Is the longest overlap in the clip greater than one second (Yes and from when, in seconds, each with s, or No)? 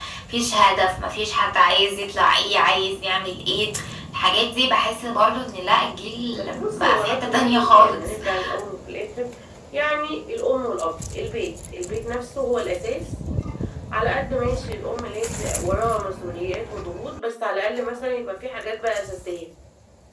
Yes, from 6.4 s